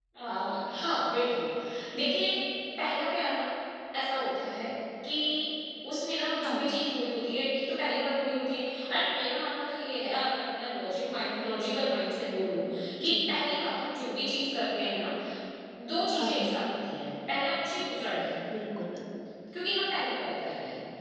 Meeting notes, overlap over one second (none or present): none